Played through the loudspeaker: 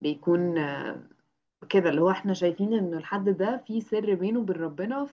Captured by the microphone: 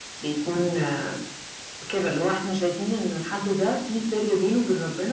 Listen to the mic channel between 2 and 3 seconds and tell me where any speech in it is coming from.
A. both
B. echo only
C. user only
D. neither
B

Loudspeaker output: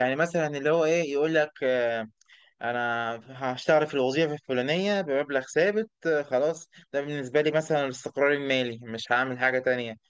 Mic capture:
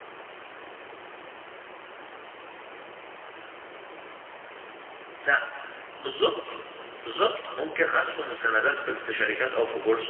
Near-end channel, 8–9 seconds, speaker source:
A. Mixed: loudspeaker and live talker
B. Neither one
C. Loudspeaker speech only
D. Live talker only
D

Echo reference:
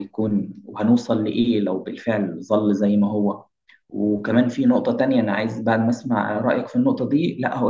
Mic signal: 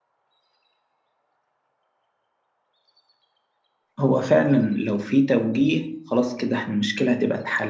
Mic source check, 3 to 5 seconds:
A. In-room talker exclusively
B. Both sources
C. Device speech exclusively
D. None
A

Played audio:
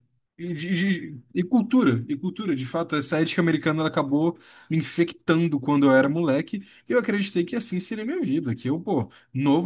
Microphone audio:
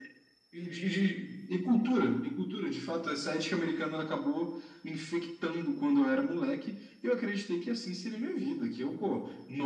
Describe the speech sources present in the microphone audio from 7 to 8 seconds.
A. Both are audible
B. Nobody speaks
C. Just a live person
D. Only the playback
D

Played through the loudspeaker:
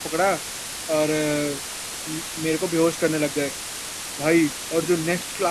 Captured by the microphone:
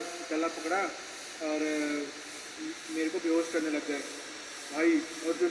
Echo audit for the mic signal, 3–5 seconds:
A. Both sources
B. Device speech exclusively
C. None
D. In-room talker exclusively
B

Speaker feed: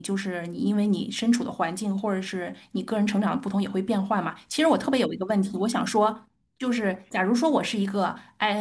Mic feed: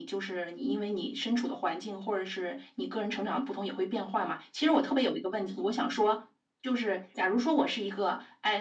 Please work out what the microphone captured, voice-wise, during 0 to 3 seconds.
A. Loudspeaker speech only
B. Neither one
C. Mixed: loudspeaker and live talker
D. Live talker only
A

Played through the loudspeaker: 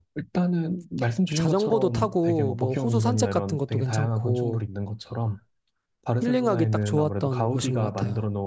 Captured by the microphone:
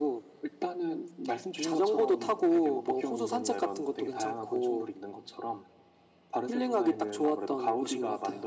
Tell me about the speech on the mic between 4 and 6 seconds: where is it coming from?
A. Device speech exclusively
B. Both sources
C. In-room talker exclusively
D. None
A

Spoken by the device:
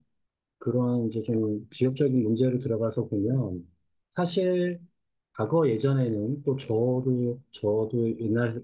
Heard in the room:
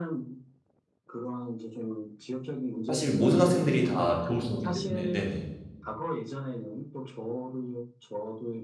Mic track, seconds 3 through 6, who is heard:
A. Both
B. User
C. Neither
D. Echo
A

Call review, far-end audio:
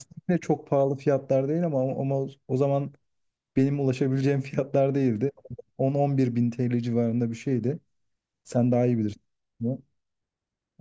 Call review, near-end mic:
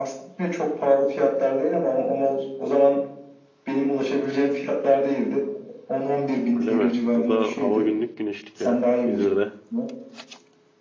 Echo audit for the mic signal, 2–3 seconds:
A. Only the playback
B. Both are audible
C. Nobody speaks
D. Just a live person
A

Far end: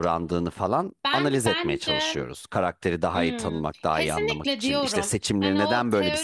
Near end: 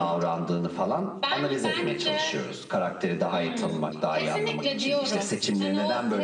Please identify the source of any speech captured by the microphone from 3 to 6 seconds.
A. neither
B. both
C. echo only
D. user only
C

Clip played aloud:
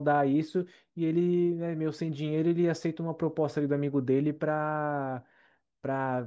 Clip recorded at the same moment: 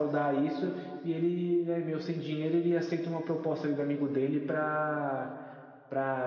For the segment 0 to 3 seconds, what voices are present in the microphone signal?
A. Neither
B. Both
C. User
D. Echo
D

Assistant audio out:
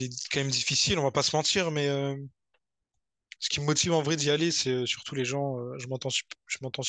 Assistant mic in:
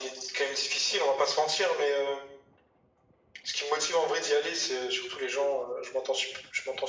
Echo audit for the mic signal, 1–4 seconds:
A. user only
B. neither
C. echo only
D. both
C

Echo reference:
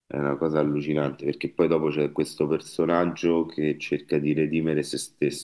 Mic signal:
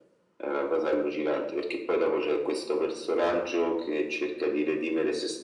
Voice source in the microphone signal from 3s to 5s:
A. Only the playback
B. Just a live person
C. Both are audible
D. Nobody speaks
A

